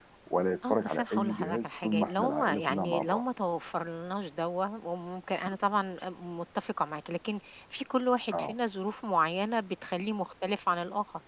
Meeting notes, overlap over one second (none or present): present